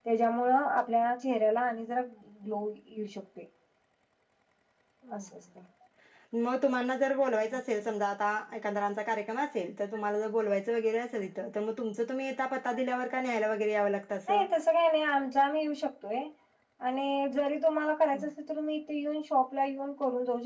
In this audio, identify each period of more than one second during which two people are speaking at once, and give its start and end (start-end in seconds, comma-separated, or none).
none